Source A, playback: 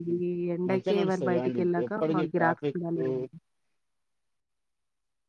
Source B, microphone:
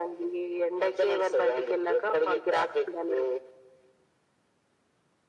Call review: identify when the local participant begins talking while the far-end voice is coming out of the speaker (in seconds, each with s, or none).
none